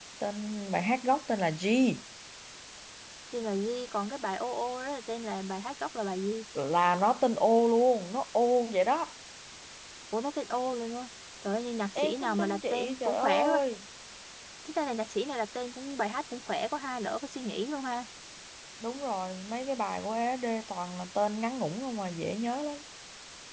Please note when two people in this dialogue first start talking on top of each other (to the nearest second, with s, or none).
12 s